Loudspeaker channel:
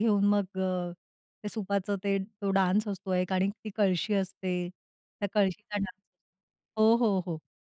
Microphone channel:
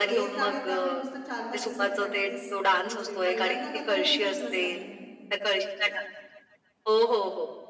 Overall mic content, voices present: both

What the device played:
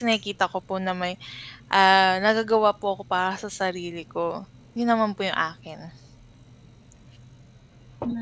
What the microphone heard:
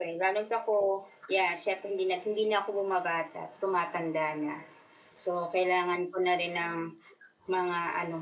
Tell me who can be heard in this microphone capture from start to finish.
user only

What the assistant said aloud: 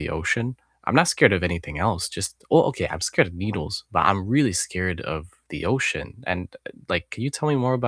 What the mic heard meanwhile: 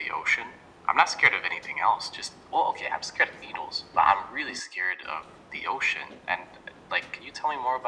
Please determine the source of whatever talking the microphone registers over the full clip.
echo only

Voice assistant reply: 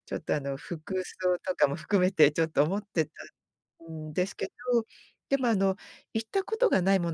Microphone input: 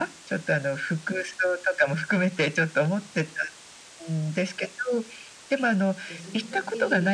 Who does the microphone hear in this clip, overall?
both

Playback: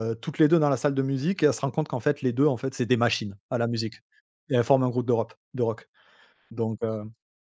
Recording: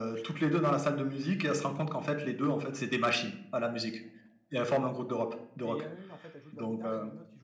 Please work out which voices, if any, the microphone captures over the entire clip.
both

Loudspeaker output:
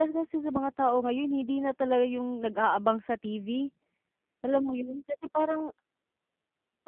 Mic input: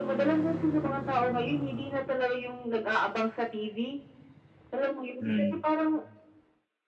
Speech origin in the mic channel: both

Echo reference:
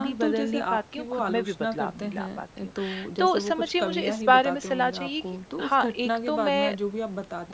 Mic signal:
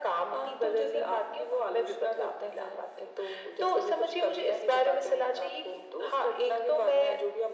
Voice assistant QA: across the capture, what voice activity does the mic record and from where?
echo only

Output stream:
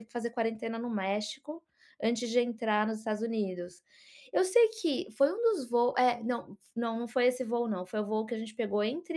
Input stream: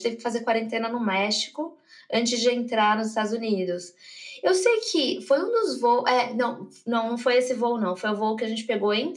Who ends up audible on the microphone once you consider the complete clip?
echo only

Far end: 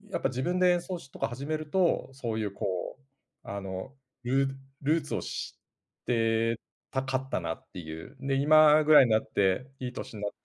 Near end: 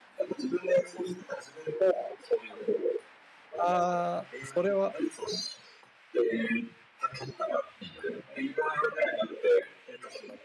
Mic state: both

